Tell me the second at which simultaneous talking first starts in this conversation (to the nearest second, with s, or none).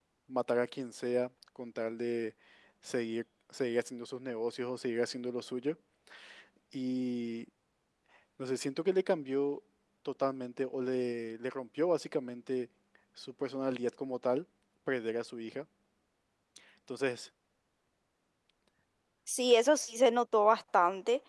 none